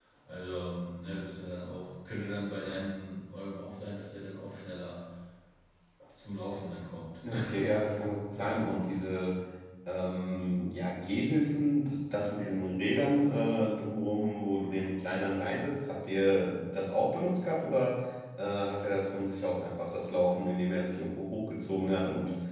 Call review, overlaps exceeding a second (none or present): none